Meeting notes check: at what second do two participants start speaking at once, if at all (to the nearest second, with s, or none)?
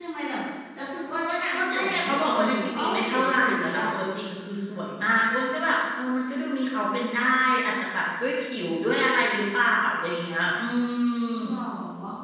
2 s